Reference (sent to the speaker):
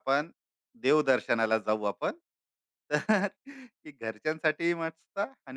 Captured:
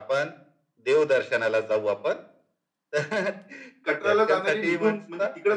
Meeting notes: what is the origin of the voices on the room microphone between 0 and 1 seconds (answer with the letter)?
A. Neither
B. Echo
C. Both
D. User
B